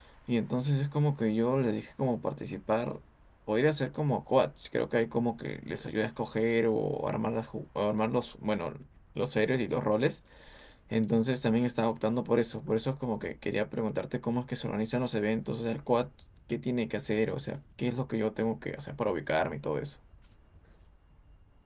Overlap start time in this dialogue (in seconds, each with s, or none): none